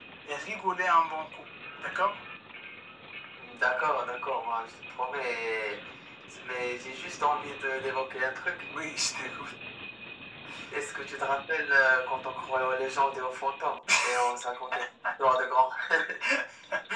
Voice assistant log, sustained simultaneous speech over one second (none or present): none